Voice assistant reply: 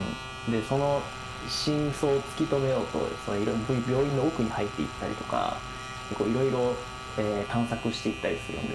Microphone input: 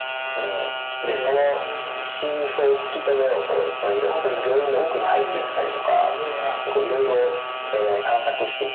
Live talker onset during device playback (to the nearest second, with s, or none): 1 s